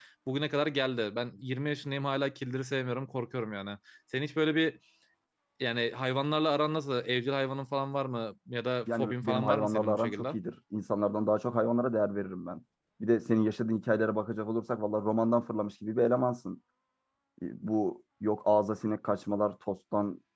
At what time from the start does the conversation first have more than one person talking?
8.9 s

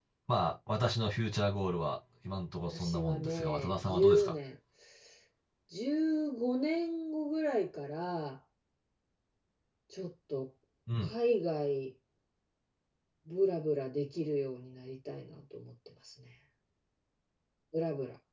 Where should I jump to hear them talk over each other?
2.7 s

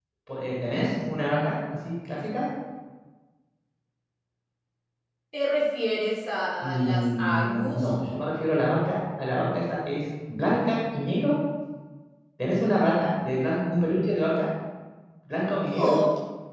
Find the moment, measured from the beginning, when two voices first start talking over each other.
6.6 s

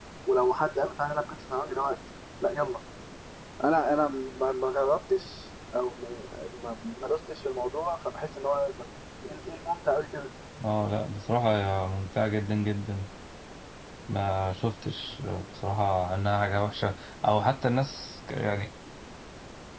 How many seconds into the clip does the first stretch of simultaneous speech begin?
none

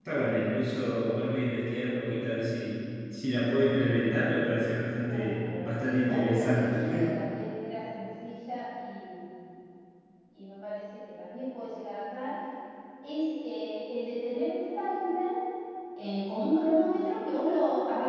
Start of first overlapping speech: 5.0 s

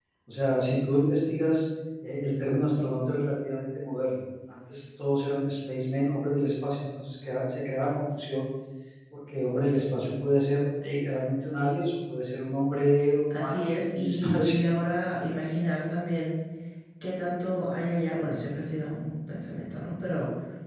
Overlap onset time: 13.3 s

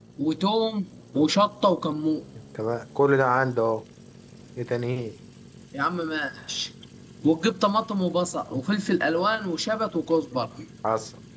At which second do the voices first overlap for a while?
none

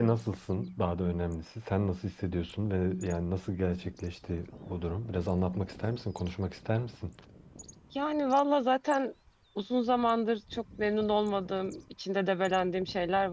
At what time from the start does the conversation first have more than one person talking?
none

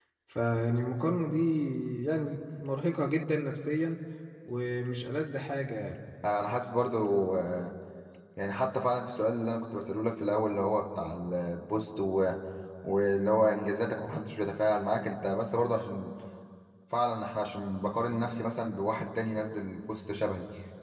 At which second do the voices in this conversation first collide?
none

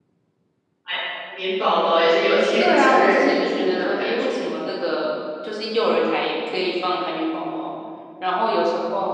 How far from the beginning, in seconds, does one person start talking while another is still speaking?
2.6 s

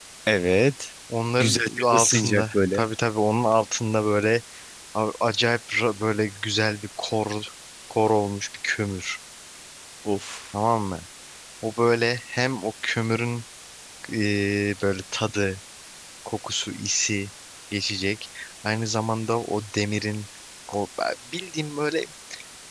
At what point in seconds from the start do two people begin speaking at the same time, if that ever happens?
1.4 s

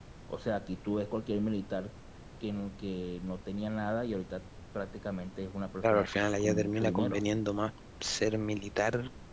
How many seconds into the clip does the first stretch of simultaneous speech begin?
5.8 s

